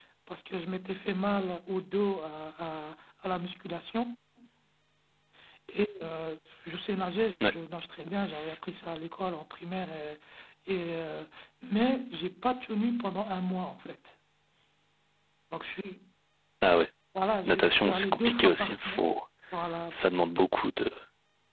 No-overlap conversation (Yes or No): No